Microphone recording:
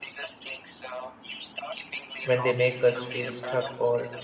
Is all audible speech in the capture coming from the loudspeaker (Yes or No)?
No